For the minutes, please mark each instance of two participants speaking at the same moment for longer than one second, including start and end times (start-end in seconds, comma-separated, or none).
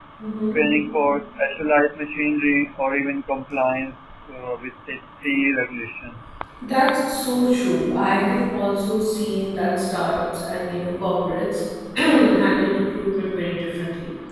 none